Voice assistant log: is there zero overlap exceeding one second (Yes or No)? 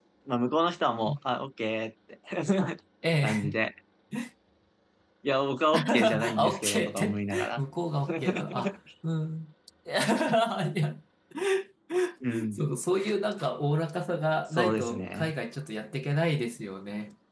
No